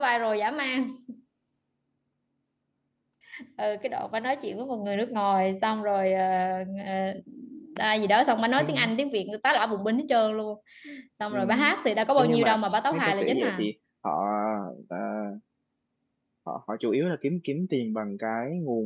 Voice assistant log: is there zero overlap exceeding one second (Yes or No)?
No